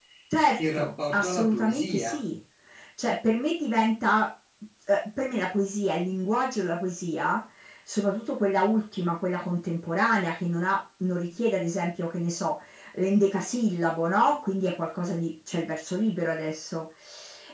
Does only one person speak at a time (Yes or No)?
No